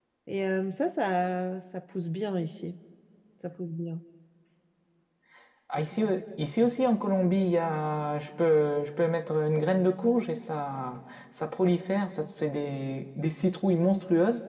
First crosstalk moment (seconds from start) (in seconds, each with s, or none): none